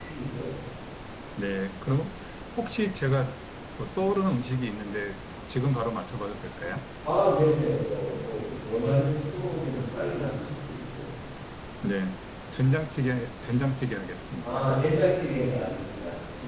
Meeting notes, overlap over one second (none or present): none